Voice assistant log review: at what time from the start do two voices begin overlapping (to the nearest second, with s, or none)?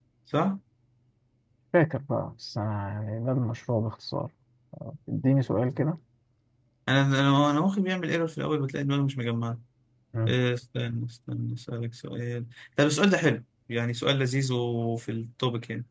none